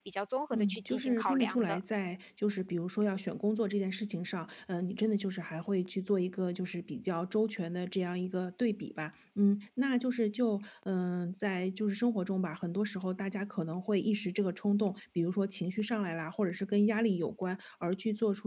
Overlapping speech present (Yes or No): Yes